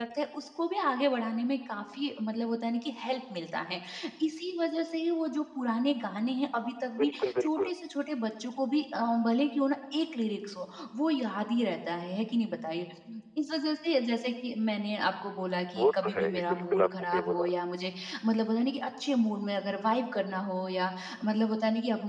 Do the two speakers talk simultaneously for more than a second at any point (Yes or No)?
Yes